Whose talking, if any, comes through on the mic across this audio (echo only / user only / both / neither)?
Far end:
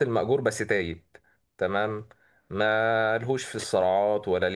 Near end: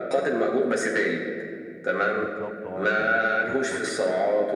both